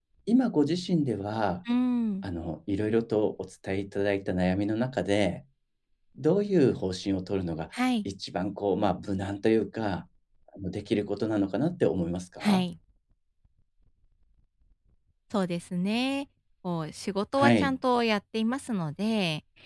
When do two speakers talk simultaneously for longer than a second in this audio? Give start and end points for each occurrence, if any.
none

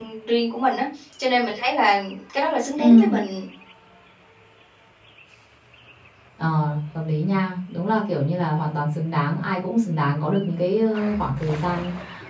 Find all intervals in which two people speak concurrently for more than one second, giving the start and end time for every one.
none

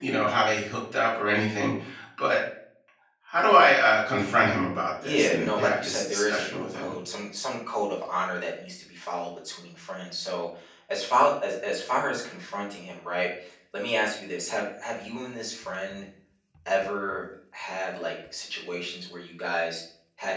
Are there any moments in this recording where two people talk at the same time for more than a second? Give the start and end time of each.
5.0-6.9

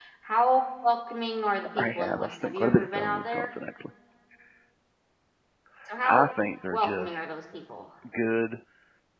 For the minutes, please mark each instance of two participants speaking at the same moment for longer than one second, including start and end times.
1.8-3.6

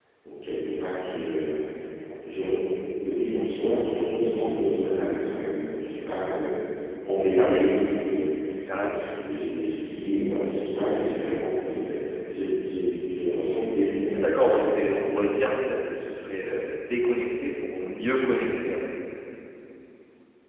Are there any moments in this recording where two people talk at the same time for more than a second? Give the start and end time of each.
none

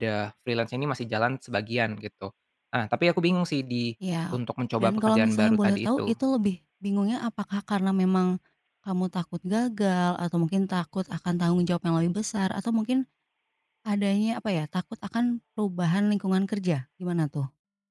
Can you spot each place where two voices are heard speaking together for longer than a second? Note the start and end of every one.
4.8-6.1

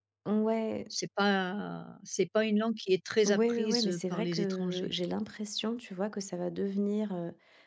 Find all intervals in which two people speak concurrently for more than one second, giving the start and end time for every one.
3.2-4.9

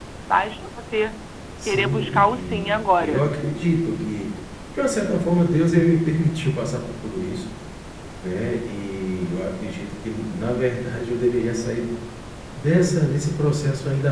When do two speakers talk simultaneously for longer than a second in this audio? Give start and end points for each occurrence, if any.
1.7-3.3

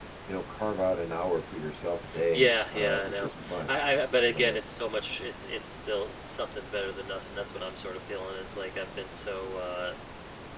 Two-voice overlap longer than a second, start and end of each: 2.3-3.7

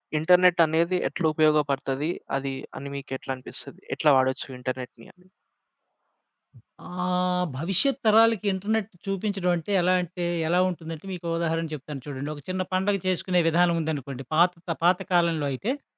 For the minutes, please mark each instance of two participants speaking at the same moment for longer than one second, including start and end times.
none

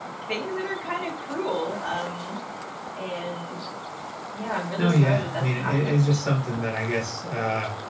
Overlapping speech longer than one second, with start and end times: 4.8-6.2

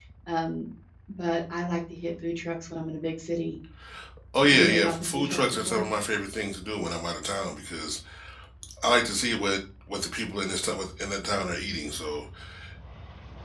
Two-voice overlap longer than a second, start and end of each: 4.4-5.8

